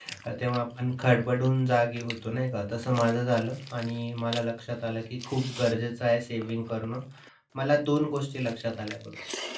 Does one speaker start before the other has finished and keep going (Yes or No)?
No